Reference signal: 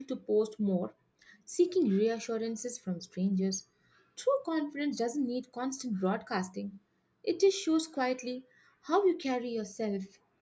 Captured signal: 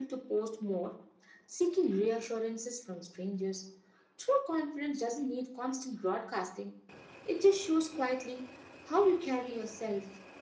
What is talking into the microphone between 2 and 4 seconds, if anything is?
echo only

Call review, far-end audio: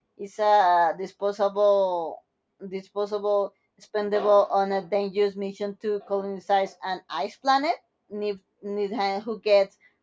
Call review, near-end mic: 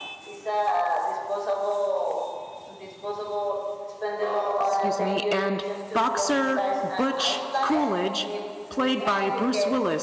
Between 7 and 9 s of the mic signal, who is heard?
both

